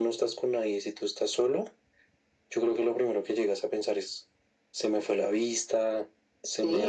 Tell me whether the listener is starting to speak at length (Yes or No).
Yes